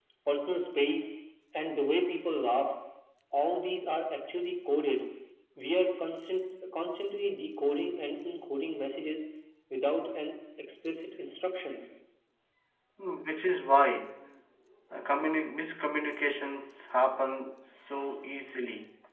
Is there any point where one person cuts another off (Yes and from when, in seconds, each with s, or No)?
No